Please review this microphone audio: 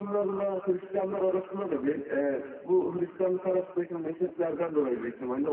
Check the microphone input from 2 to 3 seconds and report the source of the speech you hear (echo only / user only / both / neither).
echo only